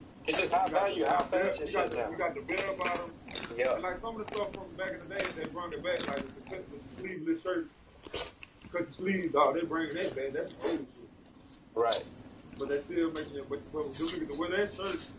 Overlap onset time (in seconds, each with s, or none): 0.6 s